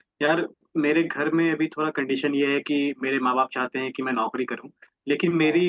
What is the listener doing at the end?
listening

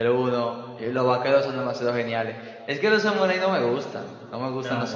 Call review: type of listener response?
taking over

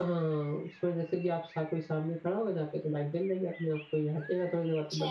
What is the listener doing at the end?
taking over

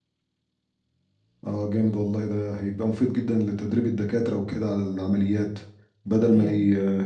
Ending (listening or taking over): listening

